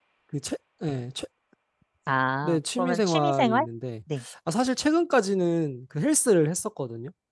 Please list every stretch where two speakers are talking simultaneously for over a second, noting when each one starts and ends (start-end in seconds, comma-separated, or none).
2.4-3.7